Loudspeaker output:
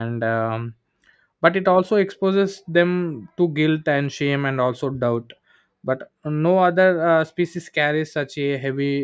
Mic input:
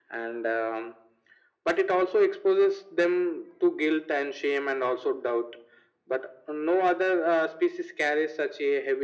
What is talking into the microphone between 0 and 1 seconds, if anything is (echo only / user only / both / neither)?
echo only